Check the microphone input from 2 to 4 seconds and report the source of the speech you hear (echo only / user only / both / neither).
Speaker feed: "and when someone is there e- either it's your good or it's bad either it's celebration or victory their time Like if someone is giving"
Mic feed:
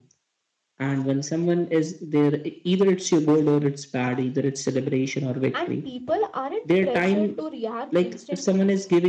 echo only